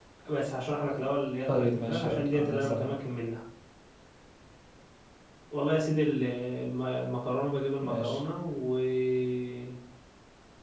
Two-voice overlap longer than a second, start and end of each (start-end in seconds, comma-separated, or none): 1.5-2.9